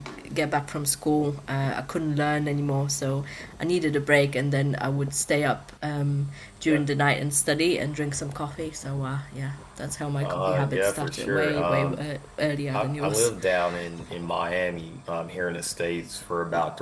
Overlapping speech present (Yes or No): Yes